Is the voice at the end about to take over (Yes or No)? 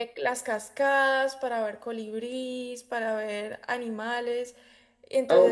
No